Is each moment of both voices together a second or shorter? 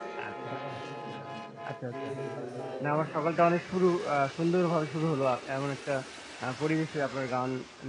Yes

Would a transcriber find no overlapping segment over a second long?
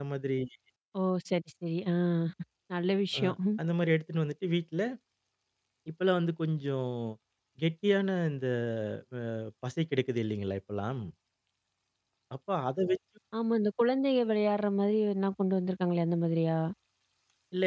Yes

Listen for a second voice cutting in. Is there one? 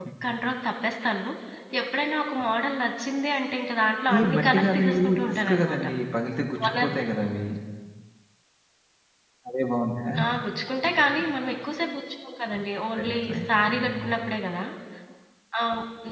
Yes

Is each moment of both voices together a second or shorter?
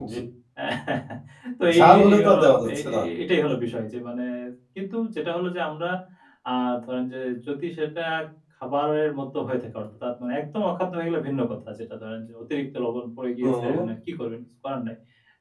No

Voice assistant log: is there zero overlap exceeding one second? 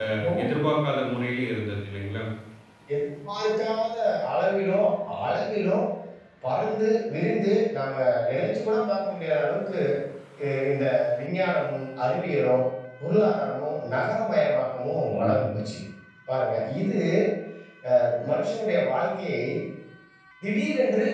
Yes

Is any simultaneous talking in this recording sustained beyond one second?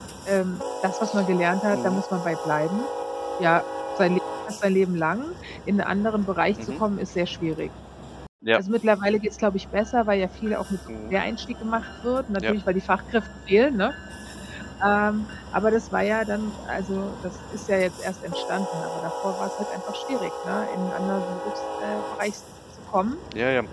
No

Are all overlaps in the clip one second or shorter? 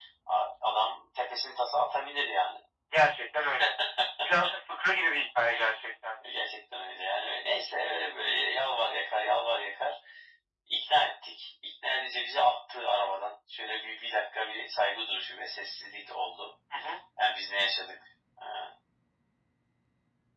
Yes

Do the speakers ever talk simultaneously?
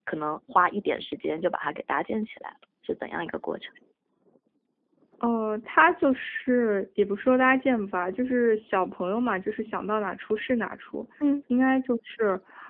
No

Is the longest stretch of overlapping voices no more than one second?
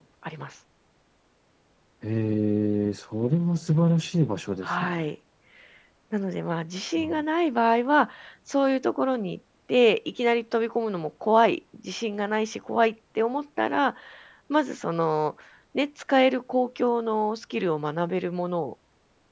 Yes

